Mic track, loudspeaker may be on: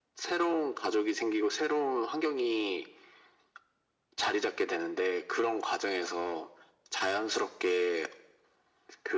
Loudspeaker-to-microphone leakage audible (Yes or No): Yes